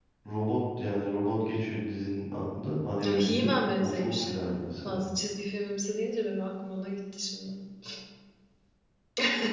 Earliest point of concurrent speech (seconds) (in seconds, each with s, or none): 3.0 s